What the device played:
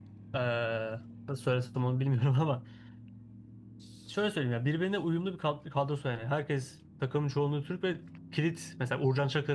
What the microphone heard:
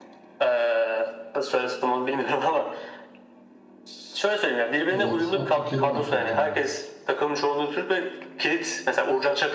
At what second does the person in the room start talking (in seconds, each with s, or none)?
4.9 s